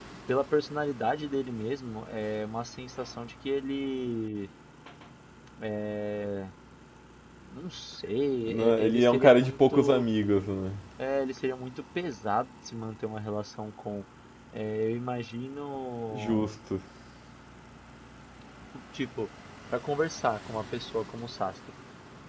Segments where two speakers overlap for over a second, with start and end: 8.5-10.1

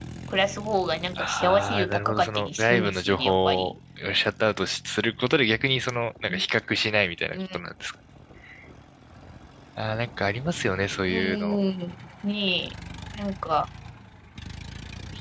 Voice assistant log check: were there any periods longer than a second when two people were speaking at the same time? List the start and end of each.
1.2-3.7

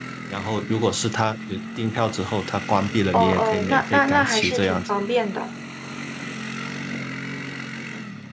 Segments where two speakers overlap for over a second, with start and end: 3.1-4.9

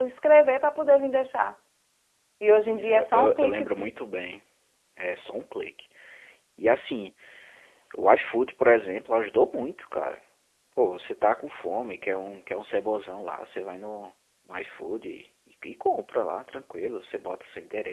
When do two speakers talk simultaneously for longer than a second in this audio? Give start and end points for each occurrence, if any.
2.7-3.9

